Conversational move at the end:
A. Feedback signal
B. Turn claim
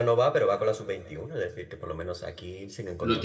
B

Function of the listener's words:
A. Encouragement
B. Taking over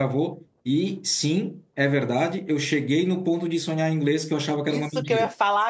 B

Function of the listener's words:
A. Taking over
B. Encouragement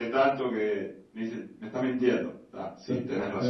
A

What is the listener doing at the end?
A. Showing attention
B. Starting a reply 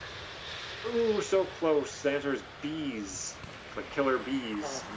B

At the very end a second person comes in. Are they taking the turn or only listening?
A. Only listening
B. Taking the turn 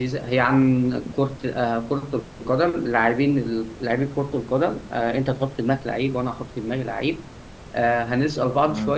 A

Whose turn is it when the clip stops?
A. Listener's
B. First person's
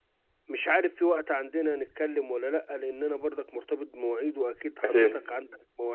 B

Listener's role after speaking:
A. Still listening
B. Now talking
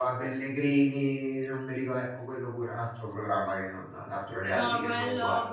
B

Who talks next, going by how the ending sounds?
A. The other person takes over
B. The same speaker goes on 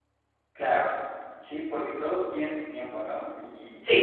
B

